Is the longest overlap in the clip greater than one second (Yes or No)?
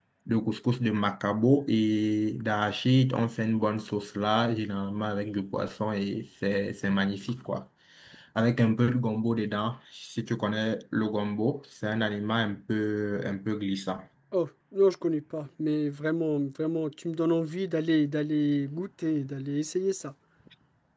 No